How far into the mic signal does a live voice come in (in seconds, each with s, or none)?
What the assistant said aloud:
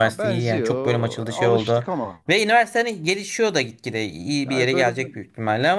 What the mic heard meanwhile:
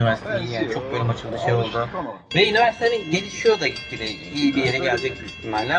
none